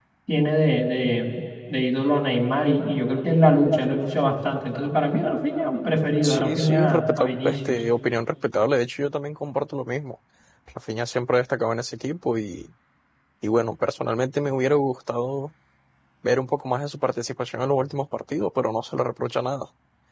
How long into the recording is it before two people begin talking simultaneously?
6.2 s

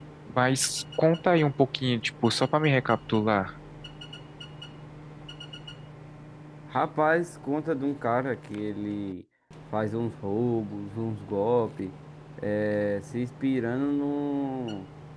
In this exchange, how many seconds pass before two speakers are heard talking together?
none

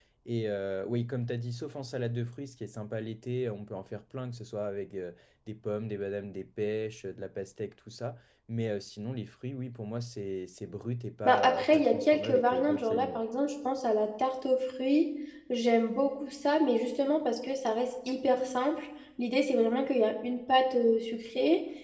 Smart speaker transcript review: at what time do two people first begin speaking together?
11.2 s

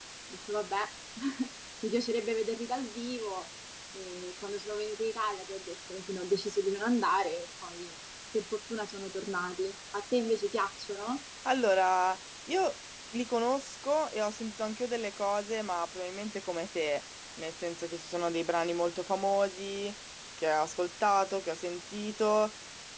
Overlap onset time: none

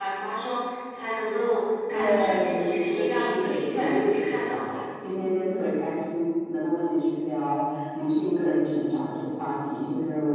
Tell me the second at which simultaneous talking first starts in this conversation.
1.9 s

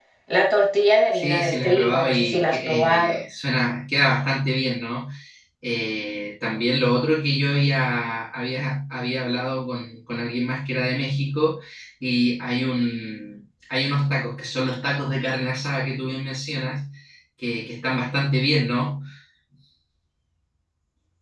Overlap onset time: 1.2 s

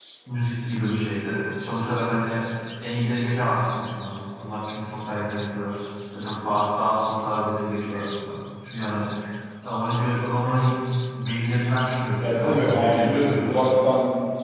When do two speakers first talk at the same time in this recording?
12.2 s

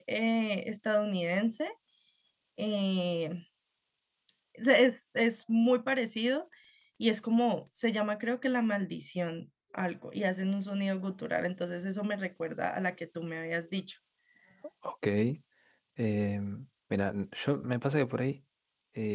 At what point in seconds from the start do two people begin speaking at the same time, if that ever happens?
none

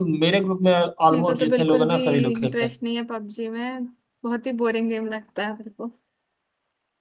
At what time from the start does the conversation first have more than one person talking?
1.1 s

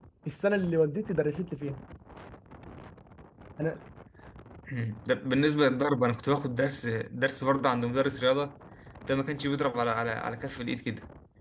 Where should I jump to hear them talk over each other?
none

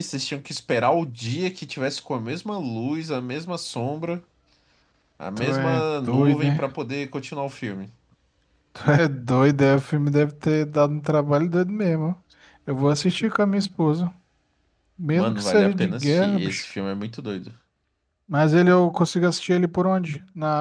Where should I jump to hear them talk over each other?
5.4 s

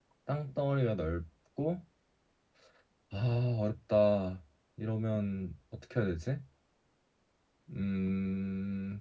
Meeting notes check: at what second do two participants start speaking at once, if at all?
none

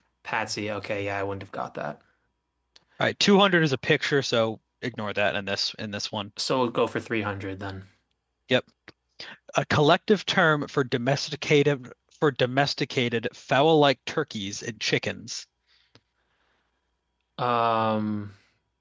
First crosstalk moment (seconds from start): none

